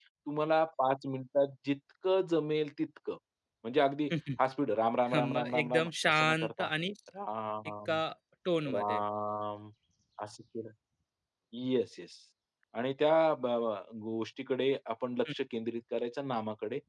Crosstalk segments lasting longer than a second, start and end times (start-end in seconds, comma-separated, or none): 5.1-6.7